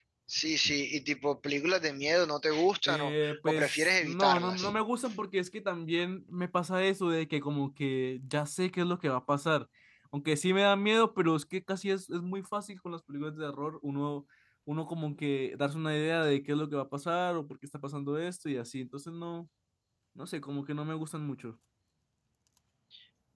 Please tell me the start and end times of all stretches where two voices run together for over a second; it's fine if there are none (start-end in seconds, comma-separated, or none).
2.9-4.6